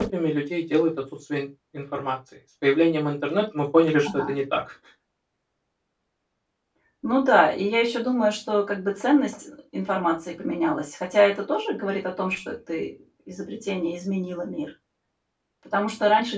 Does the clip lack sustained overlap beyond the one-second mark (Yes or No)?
Yes